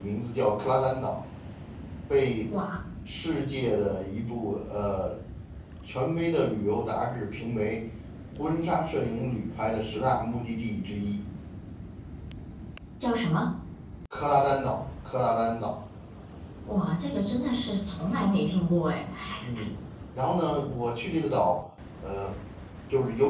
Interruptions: none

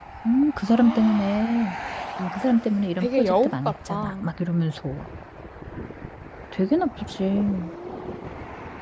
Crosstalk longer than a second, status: present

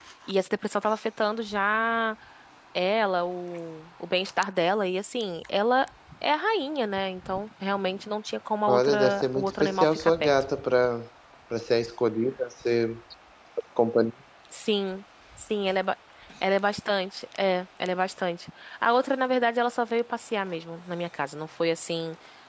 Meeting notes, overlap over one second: present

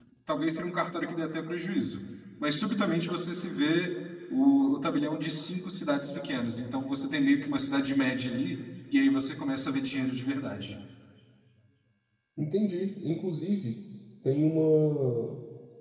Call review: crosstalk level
none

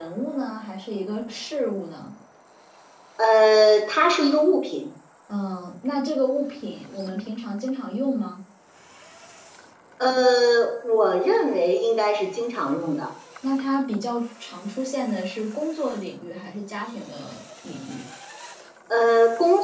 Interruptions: none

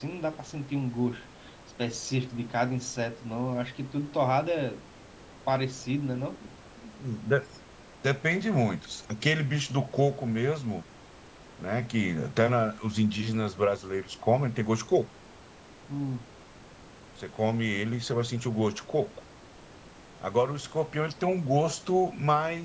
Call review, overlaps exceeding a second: none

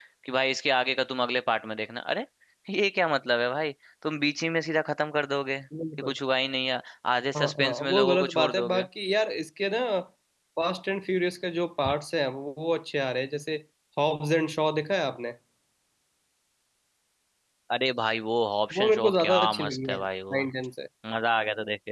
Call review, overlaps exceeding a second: present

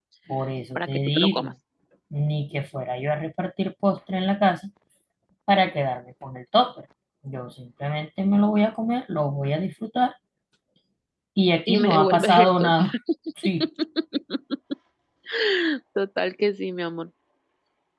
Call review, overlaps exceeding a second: present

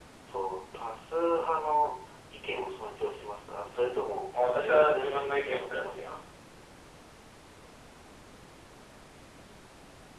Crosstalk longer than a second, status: present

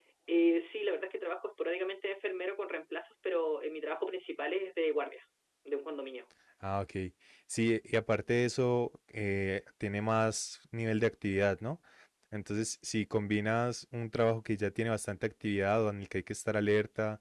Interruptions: none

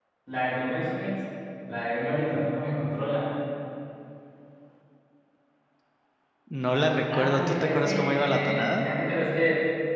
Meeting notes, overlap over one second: present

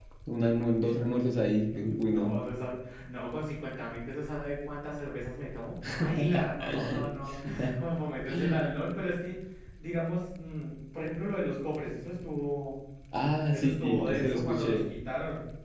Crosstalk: present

